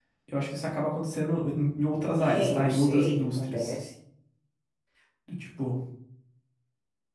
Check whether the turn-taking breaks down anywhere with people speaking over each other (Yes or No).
Yes